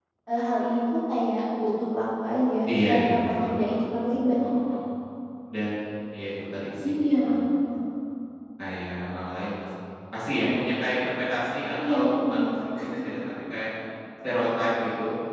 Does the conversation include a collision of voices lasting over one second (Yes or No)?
Yes